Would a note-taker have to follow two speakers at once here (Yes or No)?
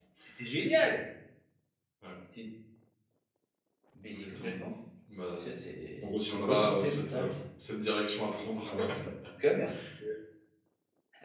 Yes